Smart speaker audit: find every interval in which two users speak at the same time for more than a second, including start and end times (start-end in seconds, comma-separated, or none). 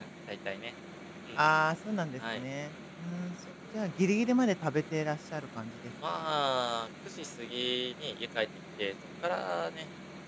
none